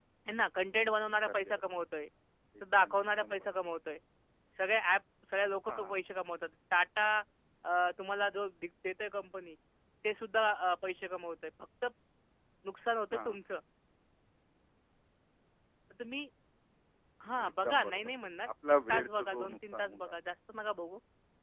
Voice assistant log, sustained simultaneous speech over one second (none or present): present